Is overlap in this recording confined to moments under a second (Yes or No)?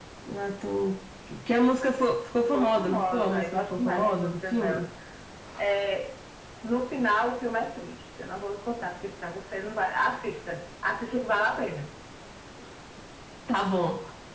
No